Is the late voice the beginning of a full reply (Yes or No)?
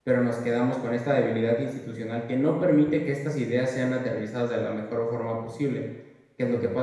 No